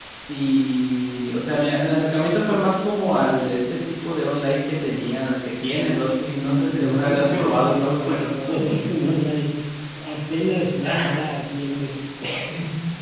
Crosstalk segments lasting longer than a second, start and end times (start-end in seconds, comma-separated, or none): 6.4-8.3